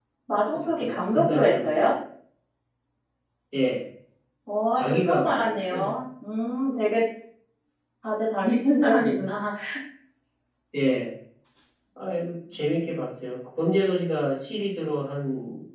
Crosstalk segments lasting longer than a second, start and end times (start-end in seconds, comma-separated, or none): 0.5-1.9, 4.8-6.0